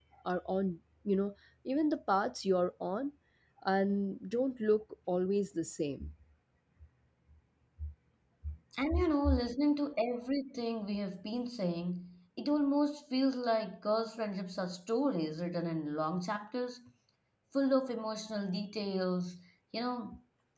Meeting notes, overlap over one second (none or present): none